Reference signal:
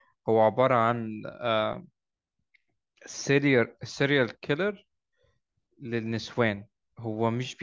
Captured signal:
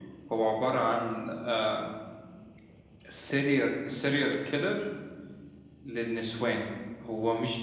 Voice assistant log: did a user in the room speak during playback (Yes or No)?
No